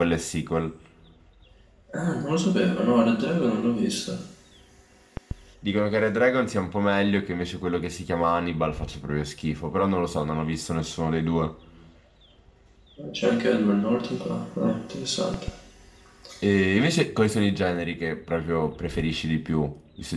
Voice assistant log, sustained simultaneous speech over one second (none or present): none